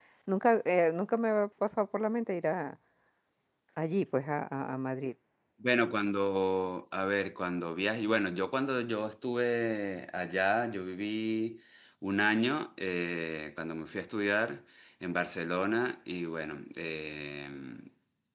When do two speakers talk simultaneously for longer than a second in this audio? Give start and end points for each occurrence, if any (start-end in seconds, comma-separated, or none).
none